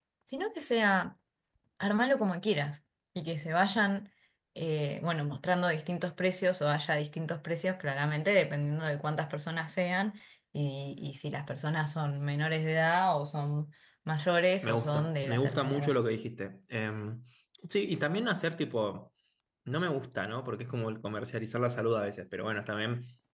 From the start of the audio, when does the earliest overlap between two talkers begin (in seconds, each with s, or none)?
14.6 s